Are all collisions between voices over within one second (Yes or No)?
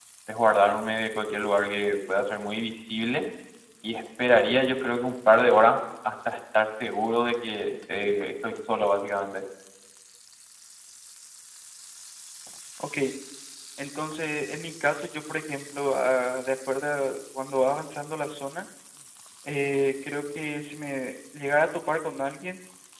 Yes